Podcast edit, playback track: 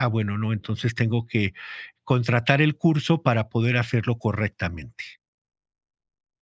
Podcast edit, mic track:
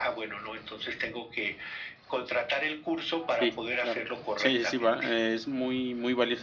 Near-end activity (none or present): present